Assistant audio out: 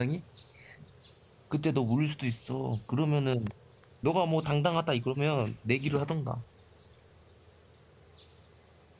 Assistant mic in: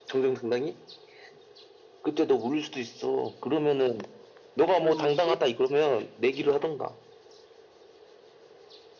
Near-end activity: present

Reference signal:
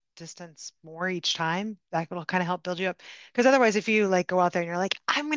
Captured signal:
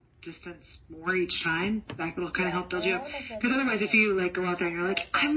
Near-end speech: present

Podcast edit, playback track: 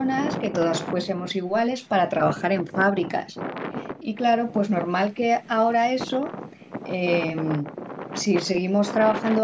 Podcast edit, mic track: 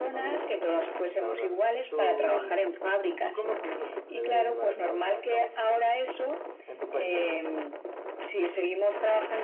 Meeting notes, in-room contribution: present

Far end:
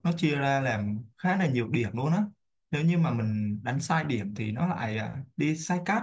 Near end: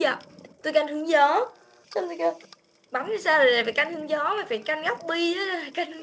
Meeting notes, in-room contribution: present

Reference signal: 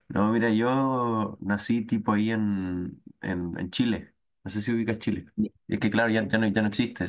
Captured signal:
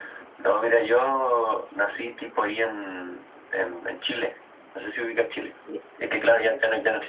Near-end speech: none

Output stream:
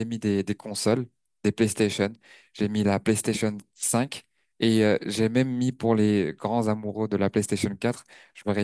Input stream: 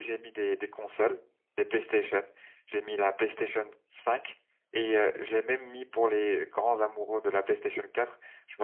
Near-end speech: none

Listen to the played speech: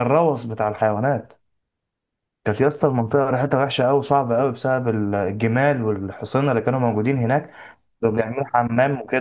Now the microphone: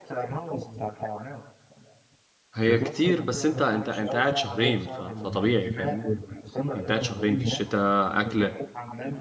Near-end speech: present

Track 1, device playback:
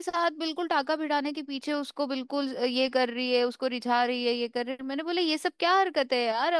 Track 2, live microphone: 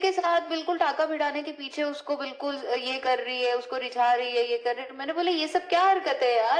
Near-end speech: none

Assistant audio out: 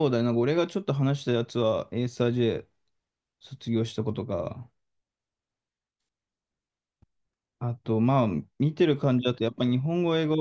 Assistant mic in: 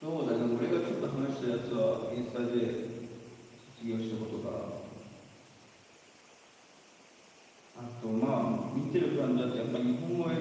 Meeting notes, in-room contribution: none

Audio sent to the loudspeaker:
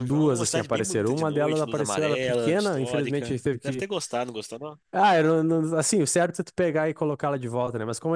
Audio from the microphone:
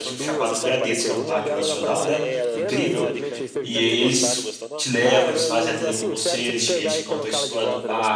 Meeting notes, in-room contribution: present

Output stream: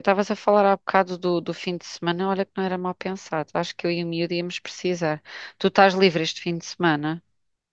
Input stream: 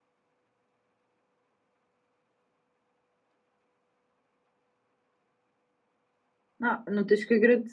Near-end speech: present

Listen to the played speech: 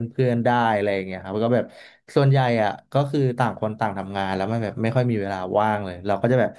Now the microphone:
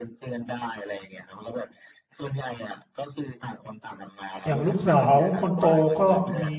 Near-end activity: present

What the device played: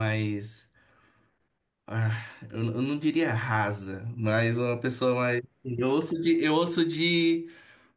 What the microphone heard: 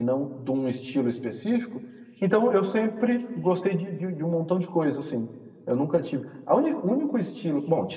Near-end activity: present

